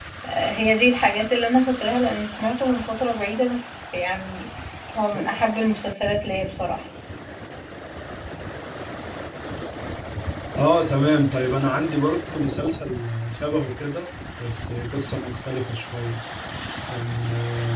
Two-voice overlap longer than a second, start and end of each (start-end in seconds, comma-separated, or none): none